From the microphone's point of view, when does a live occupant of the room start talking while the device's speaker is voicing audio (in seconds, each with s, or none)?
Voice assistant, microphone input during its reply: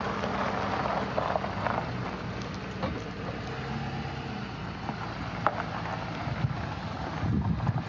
none